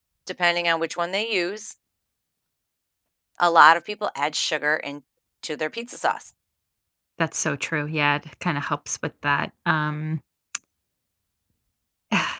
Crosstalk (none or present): none